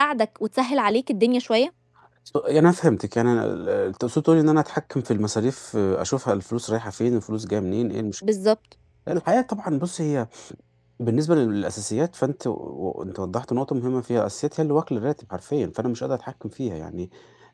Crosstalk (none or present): none